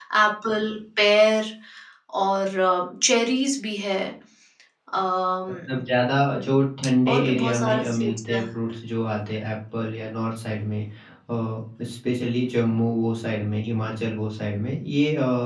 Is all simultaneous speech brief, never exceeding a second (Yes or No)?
No